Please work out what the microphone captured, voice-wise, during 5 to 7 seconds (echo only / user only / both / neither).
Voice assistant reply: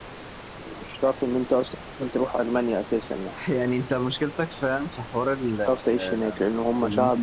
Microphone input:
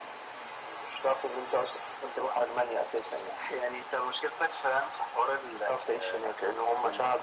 echo only